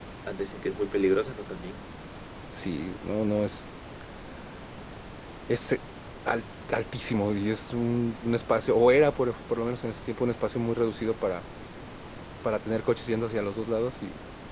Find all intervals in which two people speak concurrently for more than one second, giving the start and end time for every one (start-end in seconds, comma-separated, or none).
none